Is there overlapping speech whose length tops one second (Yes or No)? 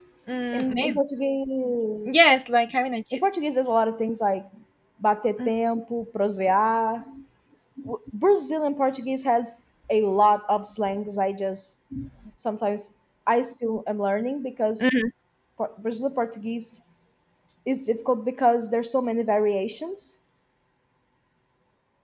No